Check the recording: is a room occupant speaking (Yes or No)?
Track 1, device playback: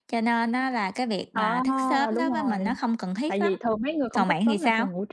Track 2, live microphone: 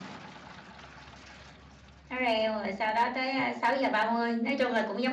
Yes